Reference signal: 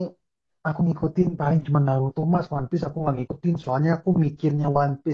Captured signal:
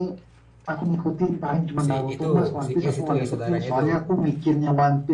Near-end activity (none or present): present